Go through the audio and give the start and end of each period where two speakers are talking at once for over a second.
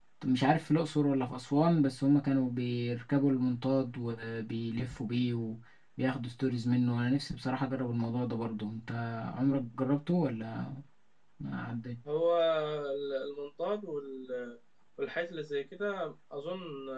none

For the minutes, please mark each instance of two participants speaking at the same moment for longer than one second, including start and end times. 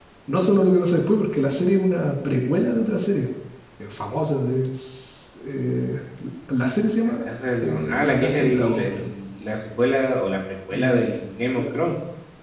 7.6-9.1

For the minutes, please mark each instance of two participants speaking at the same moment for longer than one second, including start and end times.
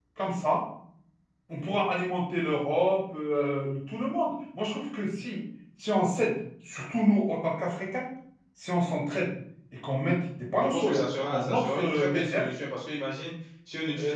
10.6-12.5

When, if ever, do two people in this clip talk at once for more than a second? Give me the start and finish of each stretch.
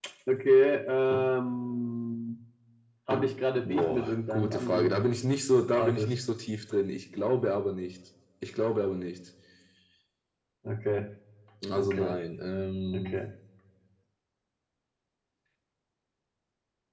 3.6-5.0

